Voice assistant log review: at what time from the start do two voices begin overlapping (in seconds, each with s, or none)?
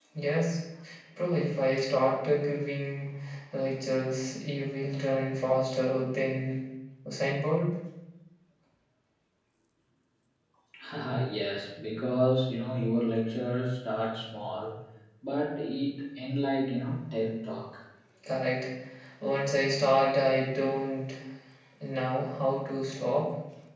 none